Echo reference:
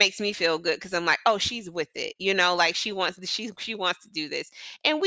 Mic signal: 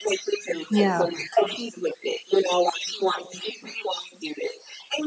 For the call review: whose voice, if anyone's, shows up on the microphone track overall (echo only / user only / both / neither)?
both